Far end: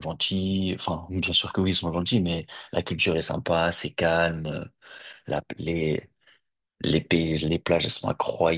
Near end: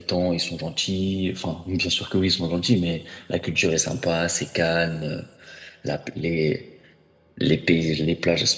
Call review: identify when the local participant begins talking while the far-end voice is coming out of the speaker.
none

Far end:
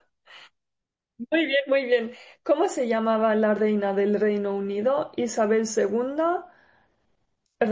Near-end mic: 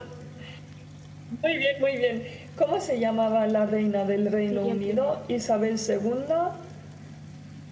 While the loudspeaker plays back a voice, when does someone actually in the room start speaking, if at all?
4 s

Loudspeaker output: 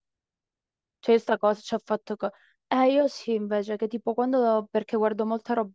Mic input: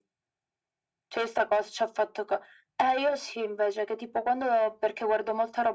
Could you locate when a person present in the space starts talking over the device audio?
none

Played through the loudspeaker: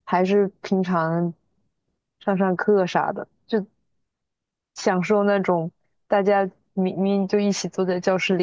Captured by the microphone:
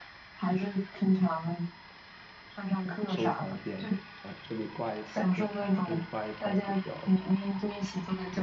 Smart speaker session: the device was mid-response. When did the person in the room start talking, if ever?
3 s

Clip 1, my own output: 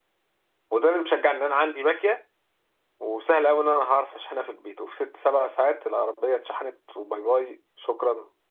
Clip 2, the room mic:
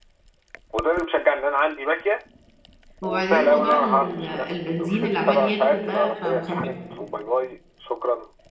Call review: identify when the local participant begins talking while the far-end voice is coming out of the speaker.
3 s

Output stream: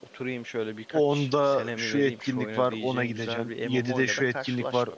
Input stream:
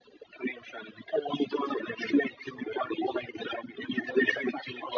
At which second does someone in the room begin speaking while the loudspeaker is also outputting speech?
none

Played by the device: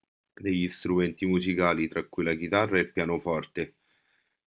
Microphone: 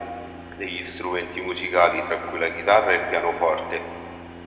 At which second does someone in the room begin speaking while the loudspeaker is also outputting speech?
none

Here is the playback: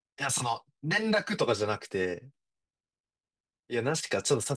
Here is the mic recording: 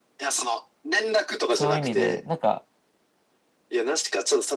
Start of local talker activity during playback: 1 s

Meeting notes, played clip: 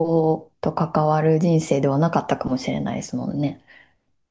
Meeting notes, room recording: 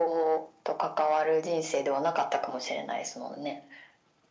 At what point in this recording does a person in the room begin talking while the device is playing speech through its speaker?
none

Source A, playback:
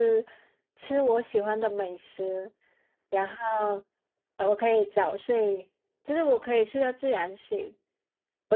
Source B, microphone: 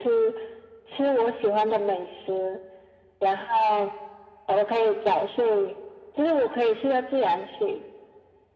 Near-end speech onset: none

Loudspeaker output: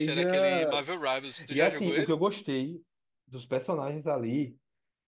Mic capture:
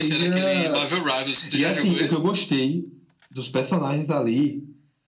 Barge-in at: none

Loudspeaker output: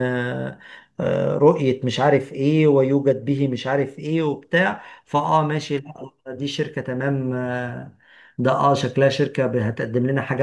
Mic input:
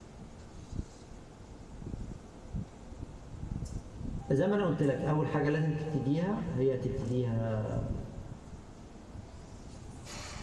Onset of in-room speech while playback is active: 4 s

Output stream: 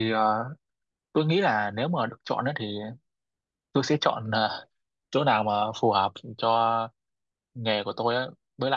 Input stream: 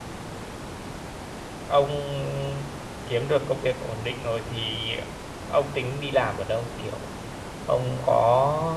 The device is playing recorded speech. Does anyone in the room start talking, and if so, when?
2 s

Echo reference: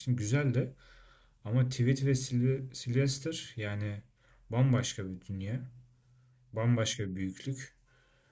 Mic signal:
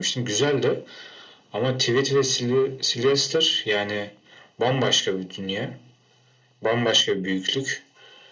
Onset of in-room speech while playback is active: none

